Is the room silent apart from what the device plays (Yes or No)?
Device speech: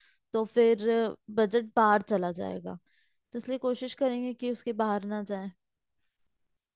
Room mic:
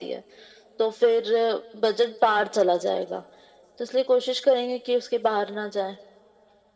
Yes